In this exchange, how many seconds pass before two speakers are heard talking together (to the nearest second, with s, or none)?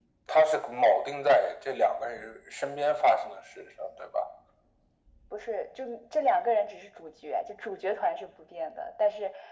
none